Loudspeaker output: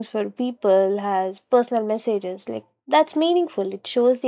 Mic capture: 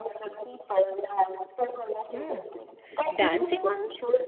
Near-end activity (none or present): present